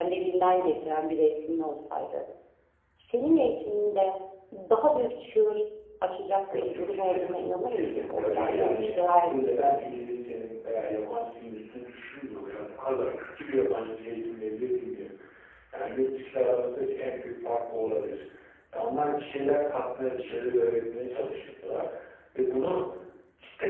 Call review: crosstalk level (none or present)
present